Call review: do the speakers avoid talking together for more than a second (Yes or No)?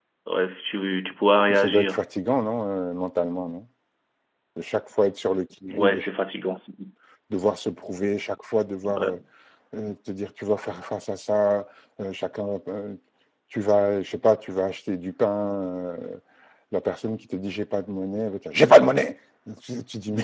Yes